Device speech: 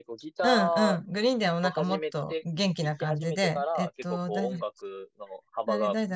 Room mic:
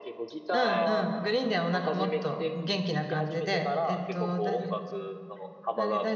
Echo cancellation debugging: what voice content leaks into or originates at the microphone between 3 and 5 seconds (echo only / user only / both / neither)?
echo only